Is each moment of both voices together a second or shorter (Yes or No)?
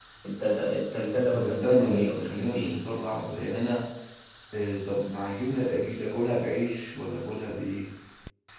No